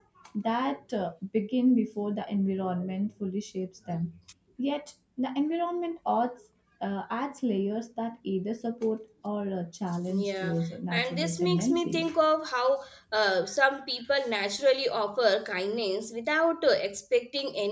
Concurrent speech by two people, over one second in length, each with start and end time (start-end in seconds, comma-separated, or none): 10.9-12.1